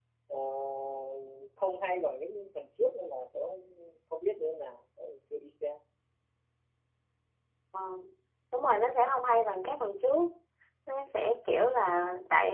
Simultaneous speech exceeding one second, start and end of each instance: none

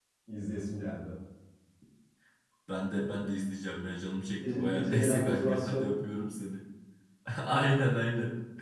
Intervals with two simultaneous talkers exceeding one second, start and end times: 4.5-5.9

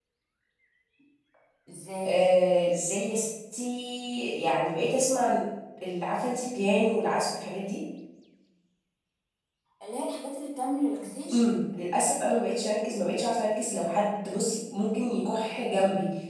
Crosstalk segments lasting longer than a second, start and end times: none

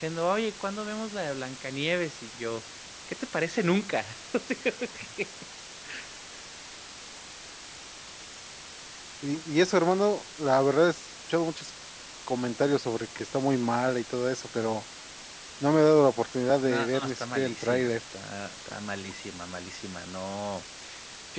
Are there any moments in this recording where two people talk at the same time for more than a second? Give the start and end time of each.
16.6-18.0

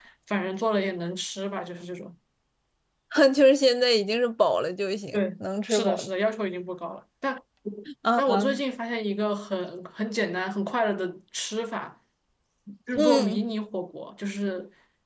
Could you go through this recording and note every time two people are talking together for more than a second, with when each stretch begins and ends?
none

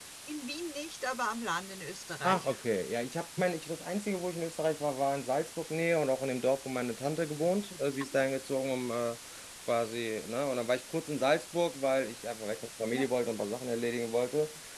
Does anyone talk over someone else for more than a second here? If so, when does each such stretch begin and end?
none

